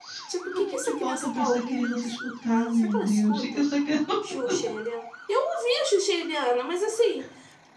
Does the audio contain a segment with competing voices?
Yes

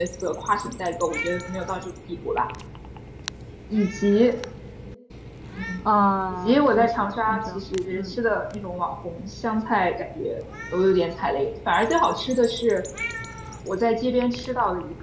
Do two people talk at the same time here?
Yes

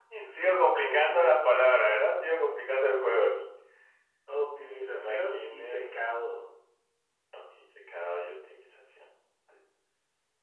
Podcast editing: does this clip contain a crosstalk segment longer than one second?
Yes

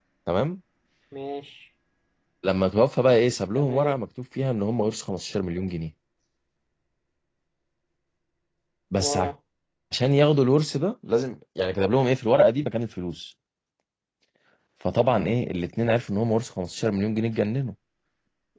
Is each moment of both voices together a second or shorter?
Yes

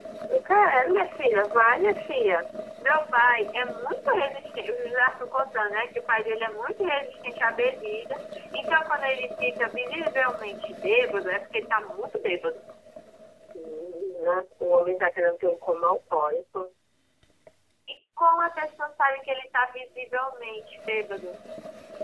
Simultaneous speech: No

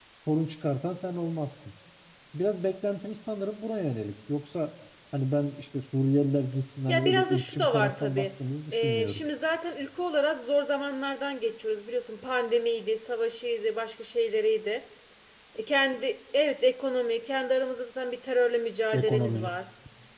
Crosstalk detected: Yes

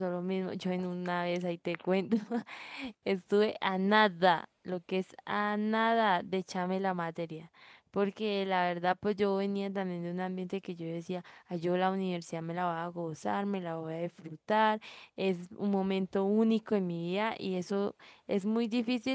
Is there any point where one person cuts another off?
No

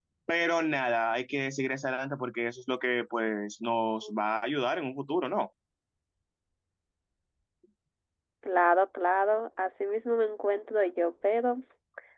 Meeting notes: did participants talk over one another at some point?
No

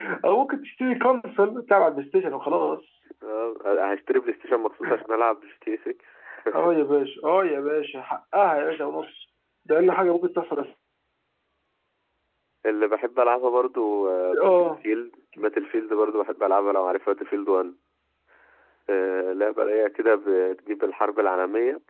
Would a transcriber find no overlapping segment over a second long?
Yes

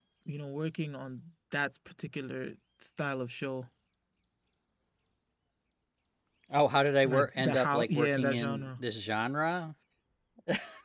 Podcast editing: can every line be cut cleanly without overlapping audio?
No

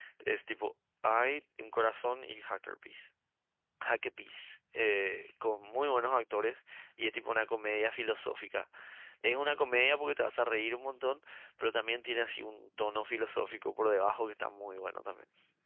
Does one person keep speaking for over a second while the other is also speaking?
No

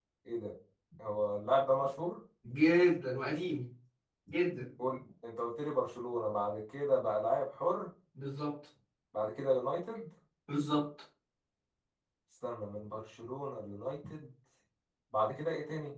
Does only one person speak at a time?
Yes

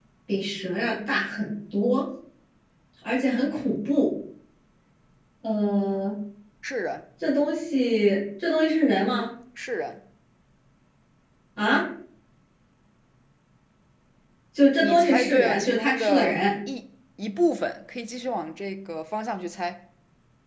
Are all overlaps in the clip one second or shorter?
No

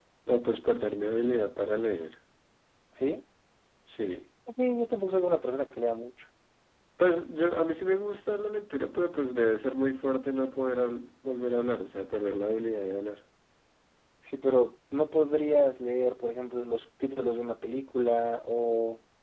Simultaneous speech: No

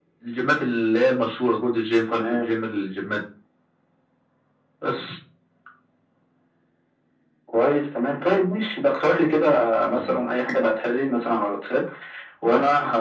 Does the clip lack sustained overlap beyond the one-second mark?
Yes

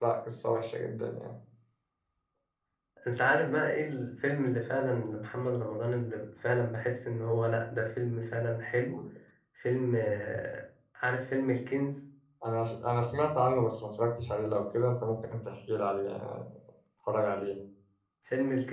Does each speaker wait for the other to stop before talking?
Yes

